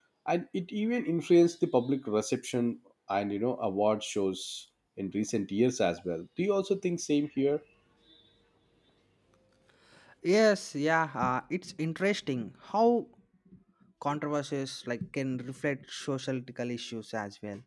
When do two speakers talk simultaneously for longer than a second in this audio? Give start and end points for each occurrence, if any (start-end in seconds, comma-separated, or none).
none